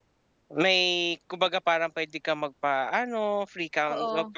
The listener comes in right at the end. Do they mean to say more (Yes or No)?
No